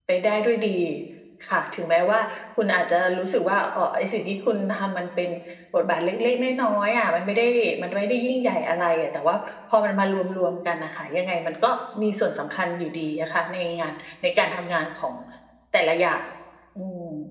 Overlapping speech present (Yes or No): No